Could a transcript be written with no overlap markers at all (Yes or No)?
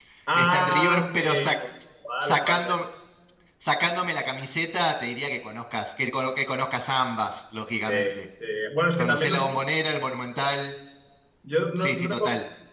No